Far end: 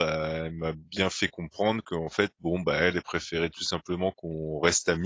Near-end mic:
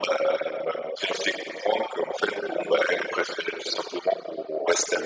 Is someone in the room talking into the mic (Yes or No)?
No